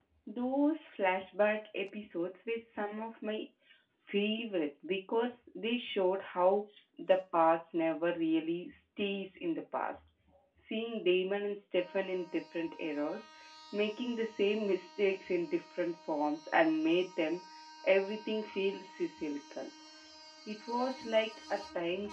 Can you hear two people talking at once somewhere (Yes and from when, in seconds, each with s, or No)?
No